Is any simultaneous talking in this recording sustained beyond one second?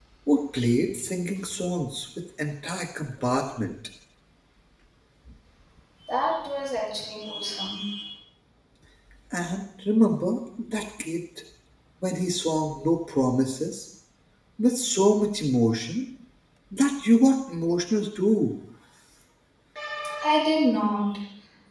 No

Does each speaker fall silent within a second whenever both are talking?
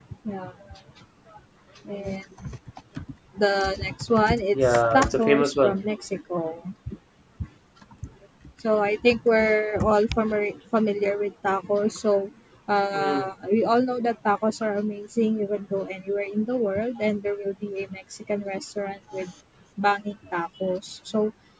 No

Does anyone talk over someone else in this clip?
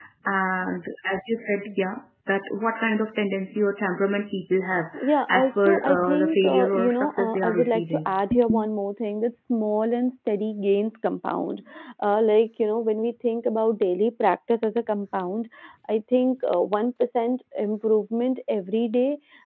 Yes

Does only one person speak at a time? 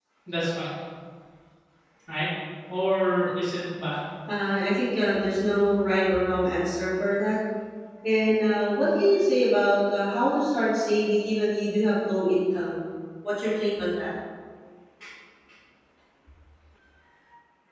Yes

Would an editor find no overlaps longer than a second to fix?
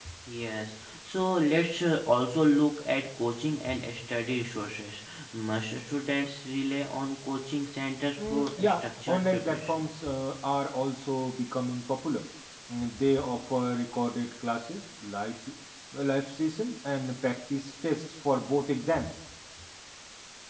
No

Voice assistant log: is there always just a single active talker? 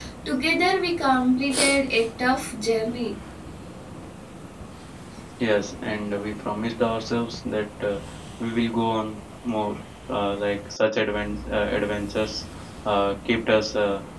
Yes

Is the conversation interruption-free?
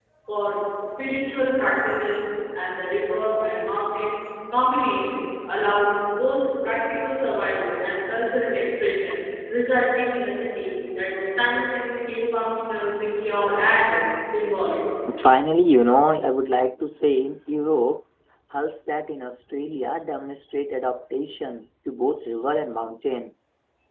Yes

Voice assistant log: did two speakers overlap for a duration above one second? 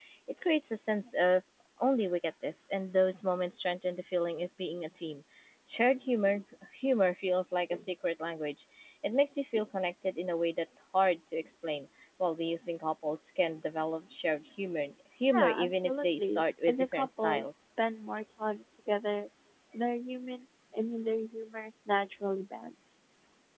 Yes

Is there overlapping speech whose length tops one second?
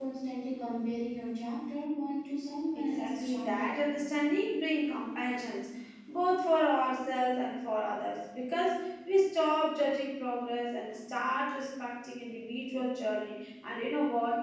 Yes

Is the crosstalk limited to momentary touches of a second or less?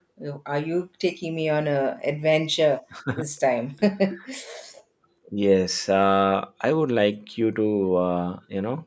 Yes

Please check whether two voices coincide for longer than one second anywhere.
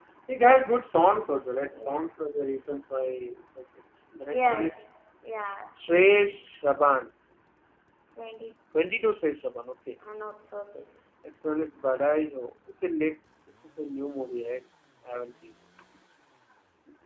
No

